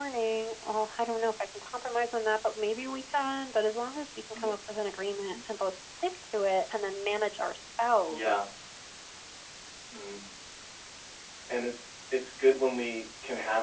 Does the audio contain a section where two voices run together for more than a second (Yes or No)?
No